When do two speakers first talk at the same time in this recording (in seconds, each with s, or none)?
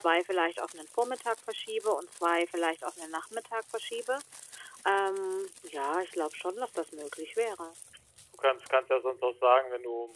none